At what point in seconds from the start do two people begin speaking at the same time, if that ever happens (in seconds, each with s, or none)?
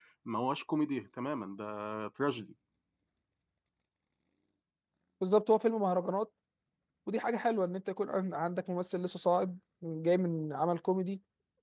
none